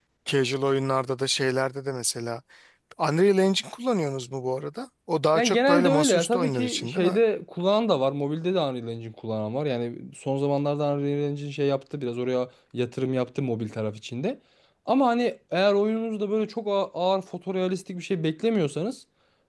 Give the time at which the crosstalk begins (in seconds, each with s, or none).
5.3 s